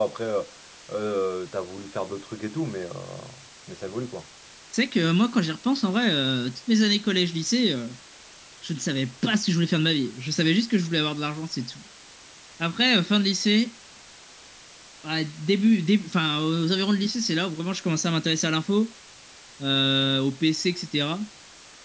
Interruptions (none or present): none